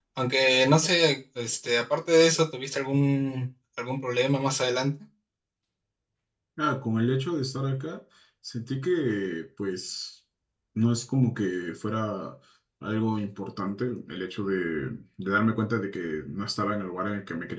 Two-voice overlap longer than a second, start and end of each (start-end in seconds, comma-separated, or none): none